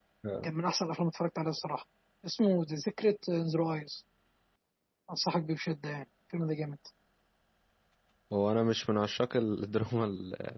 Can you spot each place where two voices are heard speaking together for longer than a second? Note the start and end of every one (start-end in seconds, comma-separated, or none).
none